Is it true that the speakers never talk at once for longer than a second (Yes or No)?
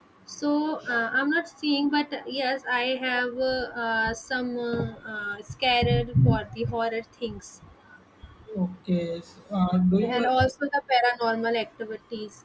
Yes